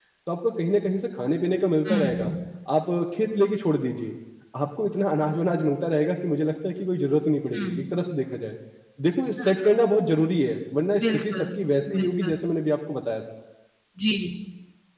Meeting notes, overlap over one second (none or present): none